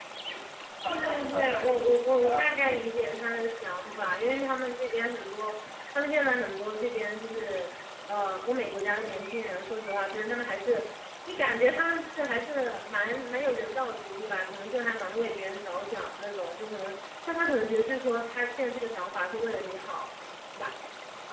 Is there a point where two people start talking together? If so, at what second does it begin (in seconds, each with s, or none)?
0.9 s